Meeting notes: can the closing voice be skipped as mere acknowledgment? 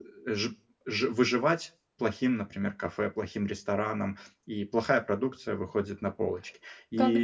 No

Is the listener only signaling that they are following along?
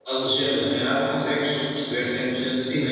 No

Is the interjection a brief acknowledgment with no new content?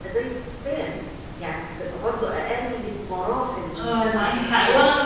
No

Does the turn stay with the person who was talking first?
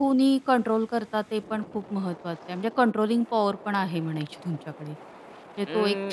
No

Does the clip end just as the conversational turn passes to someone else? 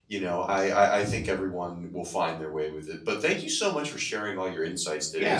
Yes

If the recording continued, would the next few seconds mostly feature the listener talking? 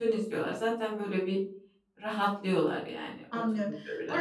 Yes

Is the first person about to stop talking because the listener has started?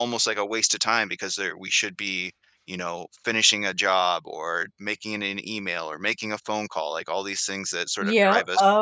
Yes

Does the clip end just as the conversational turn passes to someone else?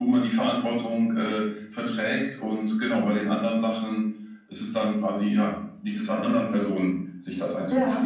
Yes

